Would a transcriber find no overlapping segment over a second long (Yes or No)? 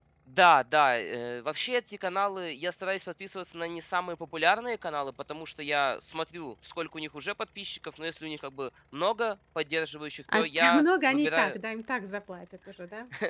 No